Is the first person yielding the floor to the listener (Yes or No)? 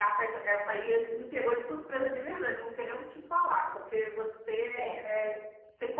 No